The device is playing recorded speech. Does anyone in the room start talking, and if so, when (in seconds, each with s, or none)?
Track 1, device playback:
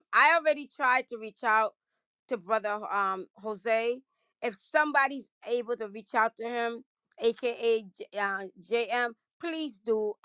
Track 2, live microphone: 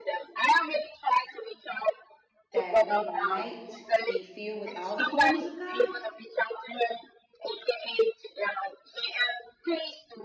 2.5 s